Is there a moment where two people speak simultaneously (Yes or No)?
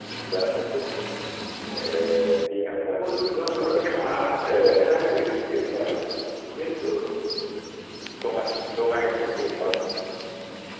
Yes